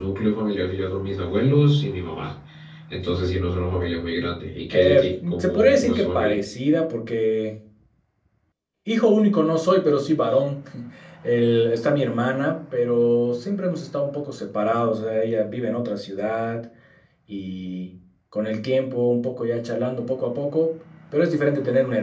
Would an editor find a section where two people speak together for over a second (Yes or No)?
Yes